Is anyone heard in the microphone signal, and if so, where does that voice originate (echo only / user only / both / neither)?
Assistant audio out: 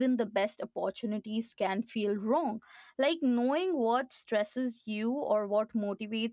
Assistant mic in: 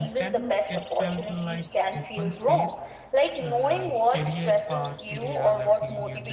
both